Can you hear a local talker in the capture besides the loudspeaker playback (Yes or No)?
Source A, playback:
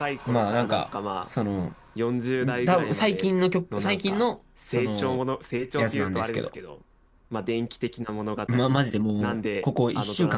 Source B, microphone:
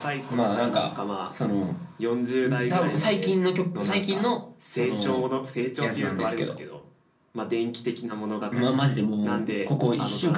No